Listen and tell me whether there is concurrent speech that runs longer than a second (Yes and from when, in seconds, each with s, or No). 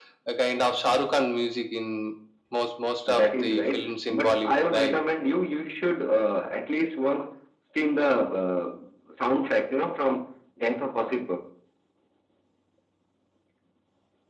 Yes, from 3.1 s